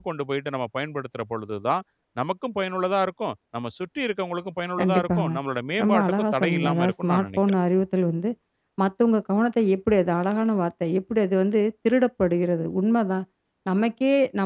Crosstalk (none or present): present